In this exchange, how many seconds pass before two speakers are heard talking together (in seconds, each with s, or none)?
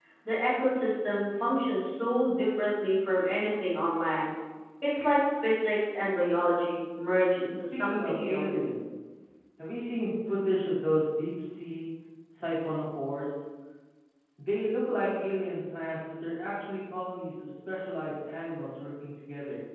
7.5 s